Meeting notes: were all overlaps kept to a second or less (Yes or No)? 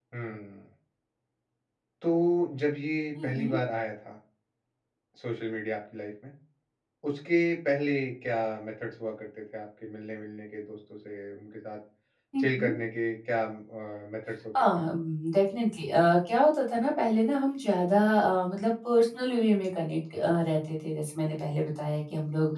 Yes